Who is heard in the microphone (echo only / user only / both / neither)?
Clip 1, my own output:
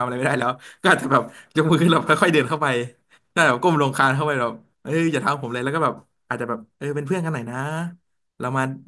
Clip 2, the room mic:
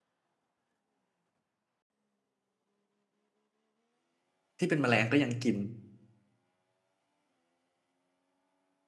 user only